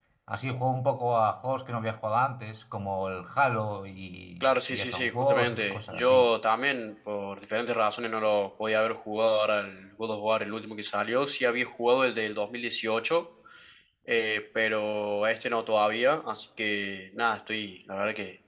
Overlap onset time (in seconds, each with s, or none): 4.4 s